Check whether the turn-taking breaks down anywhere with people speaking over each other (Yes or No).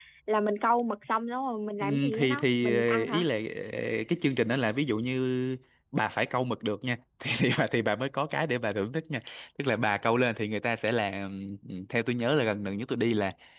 Yes